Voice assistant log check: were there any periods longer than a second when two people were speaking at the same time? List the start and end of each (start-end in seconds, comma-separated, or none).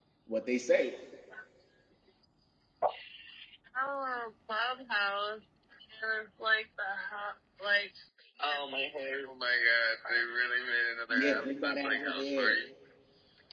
11.1-12.6